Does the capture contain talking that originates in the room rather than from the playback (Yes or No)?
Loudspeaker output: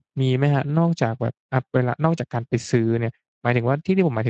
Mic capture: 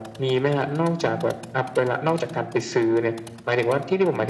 No